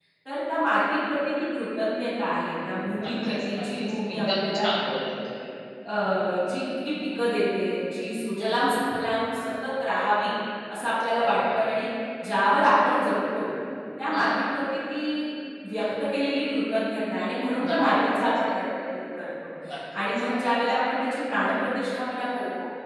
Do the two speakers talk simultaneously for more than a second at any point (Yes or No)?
Yes